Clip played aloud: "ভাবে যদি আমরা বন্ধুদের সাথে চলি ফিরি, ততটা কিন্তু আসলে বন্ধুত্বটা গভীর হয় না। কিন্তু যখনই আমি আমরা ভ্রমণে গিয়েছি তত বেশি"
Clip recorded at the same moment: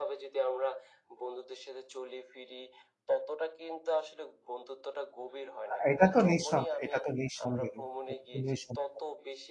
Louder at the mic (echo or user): user